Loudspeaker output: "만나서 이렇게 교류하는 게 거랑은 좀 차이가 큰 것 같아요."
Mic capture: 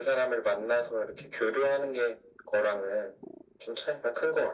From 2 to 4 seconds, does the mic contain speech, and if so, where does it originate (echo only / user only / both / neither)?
echo only